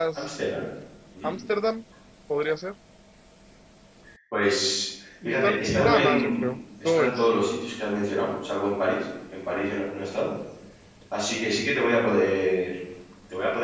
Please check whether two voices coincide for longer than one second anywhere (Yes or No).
Yes